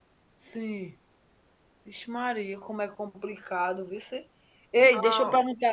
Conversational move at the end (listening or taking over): listening